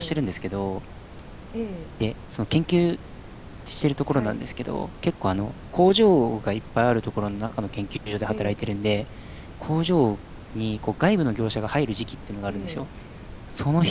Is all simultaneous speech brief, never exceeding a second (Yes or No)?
Yes